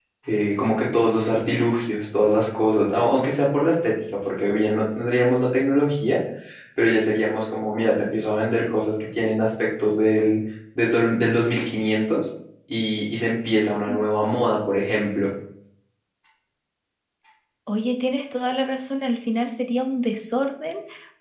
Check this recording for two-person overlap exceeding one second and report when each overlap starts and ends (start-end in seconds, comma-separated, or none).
none